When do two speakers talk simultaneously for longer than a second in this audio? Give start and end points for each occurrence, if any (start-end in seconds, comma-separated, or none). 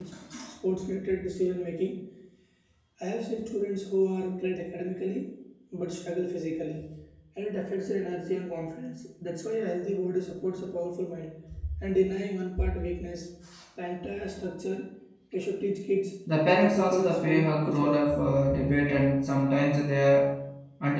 16.3-18.0